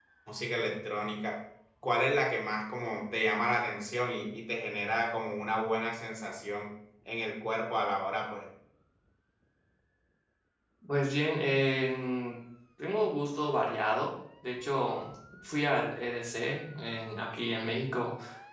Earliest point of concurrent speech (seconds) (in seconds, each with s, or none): none